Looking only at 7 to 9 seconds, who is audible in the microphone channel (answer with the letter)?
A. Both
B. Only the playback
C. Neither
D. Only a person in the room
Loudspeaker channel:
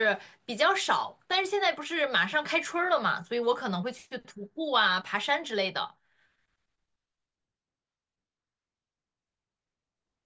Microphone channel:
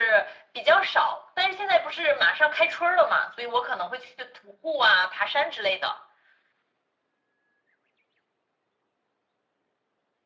C